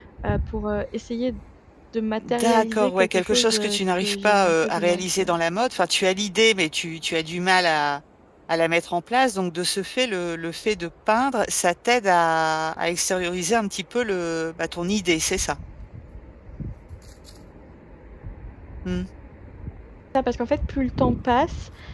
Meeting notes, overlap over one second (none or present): present